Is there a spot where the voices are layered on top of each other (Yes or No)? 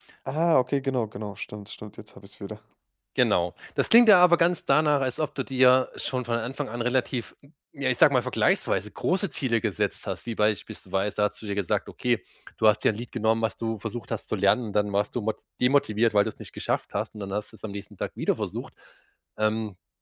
No